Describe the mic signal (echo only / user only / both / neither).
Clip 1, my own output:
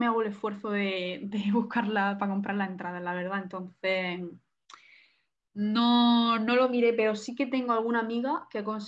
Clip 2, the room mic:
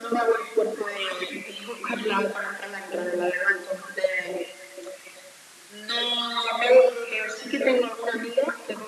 echo only